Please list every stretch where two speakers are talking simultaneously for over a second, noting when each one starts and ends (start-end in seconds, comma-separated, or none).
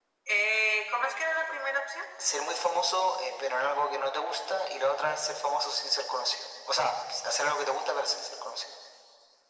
none